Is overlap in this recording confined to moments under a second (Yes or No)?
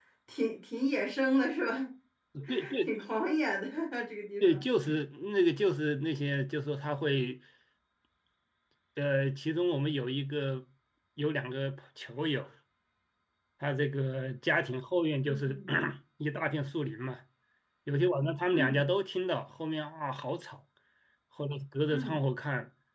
Yes